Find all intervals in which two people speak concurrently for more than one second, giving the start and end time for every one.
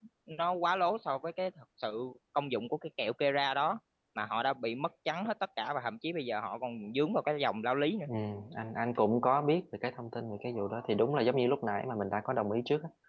none

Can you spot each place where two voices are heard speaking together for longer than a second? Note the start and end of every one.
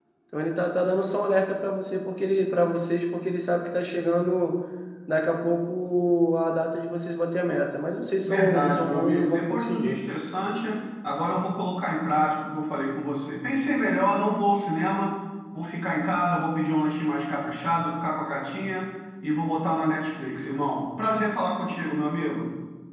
8.3-10.0

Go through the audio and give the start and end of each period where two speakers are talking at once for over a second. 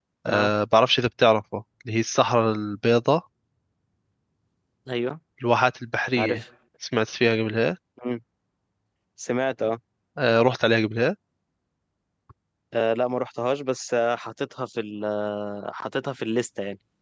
none

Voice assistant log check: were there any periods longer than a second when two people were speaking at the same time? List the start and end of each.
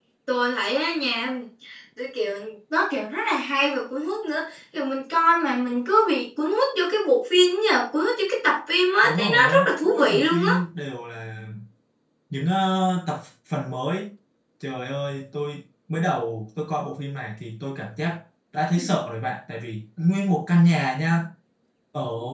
9.0-10.5

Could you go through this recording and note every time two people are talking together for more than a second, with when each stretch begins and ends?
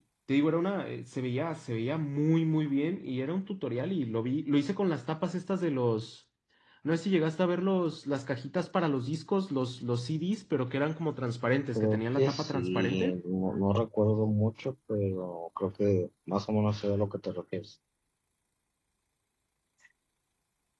11.8-13.2

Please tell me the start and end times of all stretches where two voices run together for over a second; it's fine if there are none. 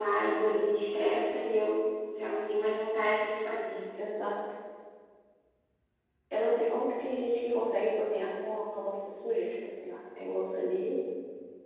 none

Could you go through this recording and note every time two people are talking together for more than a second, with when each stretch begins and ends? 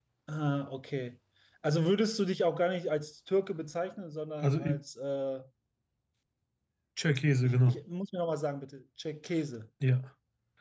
none

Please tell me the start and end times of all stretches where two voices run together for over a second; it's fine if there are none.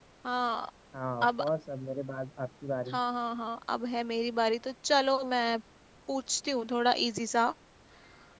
none

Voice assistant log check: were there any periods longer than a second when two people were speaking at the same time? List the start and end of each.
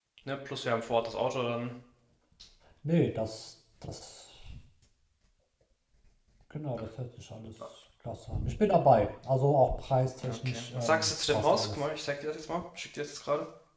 10.3-11.9

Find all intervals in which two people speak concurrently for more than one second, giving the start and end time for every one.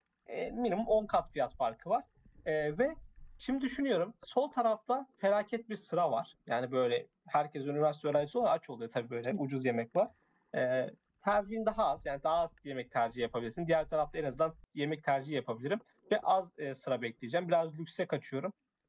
none

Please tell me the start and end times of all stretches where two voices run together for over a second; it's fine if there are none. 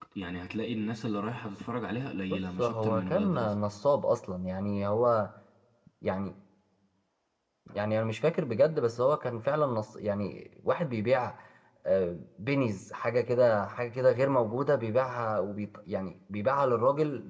2.3-3.5

